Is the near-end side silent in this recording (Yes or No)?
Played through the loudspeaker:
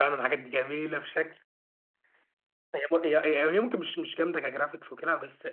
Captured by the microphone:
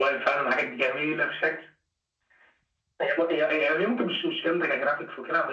Yes